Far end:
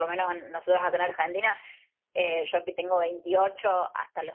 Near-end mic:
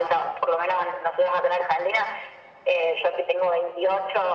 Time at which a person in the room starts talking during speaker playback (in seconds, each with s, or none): none